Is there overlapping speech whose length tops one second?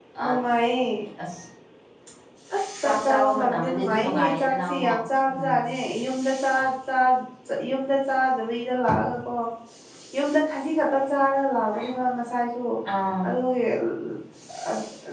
Yes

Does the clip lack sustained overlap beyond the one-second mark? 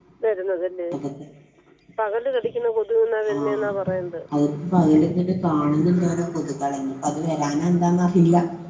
Yes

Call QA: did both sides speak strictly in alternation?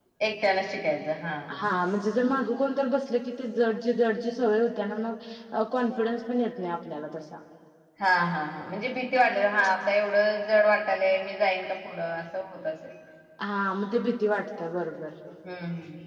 Yes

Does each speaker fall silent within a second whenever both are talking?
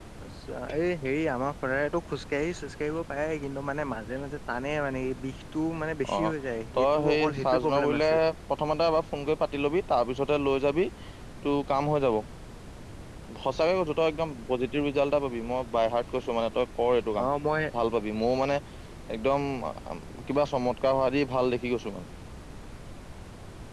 No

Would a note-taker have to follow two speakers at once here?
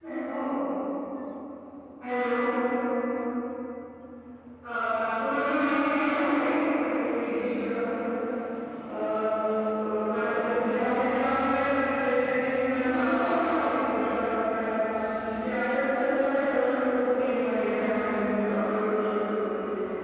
Yes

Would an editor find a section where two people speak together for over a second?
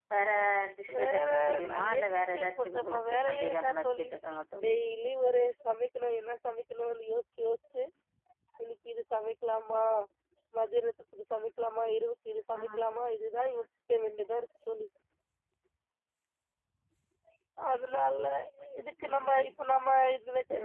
Yes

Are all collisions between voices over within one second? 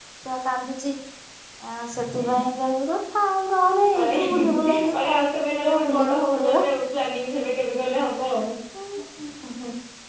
No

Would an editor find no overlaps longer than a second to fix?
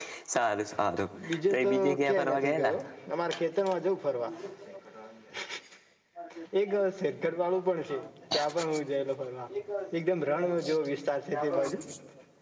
No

